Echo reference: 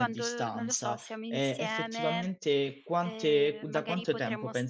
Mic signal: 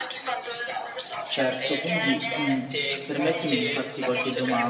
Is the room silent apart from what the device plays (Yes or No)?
No